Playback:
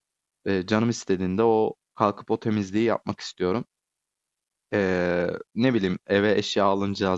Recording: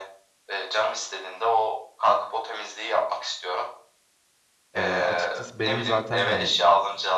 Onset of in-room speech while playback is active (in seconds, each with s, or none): 4.8 s